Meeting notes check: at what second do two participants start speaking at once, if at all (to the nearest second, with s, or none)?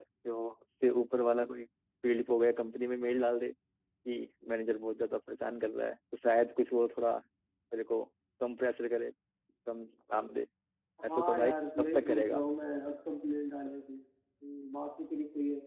11 s